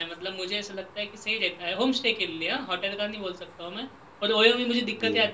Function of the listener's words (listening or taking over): listening